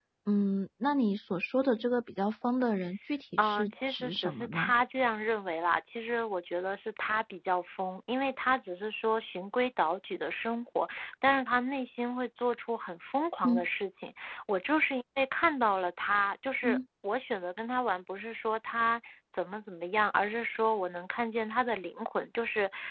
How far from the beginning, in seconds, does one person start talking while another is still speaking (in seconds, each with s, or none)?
3.4 s